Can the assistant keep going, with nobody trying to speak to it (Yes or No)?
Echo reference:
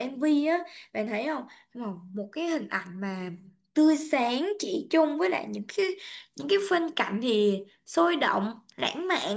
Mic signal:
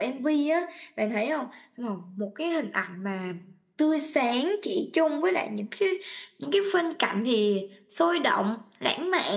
Yes